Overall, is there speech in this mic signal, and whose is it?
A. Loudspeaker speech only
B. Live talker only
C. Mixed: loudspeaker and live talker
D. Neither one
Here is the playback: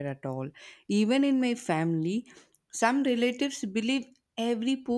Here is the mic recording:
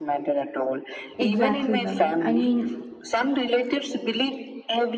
C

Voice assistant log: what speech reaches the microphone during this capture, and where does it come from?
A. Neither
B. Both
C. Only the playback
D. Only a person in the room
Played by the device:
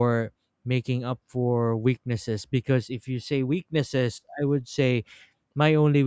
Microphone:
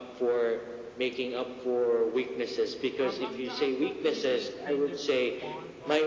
B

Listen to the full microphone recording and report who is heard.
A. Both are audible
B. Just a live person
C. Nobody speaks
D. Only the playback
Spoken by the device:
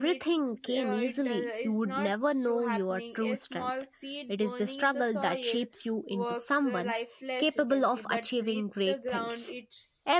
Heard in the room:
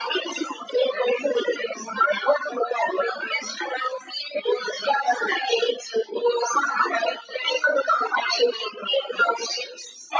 D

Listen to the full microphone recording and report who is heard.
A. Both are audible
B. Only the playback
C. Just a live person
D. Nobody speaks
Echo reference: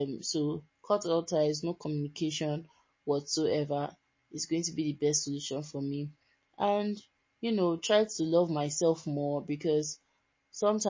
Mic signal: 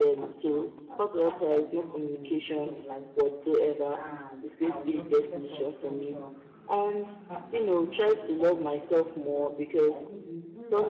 A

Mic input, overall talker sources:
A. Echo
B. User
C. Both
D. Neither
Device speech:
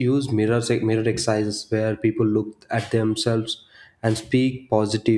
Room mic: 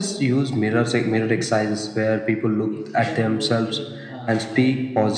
C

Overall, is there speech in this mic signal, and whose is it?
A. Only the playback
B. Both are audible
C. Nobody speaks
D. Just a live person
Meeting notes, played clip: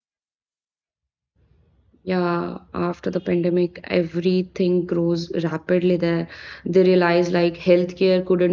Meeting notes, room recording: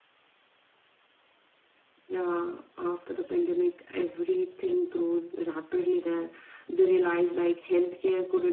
A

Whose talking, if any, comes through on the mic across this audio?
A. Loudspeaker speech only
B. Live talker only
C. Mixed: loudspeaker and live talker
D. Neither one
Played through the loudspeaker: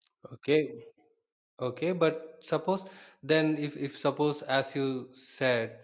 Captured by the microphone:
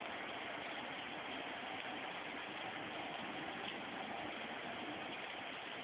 D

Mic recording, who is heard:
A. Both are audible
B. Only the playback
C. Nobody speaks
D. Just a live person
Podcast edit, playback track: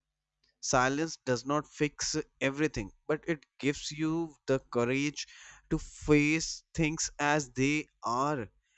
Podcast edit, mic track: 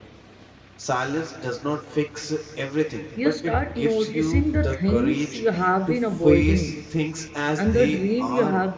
A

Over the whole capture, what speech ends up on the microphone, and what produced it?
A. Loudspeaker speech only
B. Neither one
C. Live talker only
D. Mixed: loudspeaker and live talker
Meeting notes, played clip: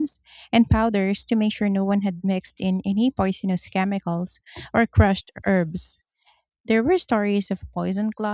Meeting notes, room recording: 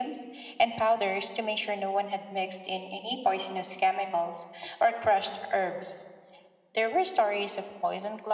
A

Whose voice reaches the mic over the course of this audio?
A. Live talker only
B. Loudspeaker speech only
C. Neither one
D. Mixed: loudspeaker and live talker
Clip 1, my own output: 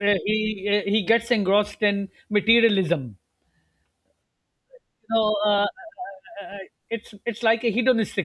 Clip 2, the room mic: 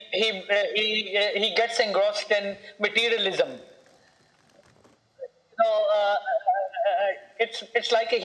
B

